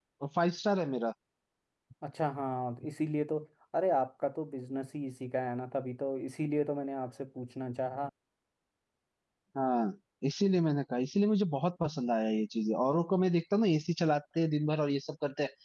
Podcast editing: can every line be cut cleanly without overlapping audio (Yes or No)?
Yes